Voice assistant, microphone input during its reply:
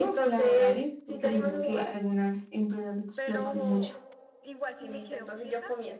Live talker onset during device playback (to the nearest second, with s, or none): 3 s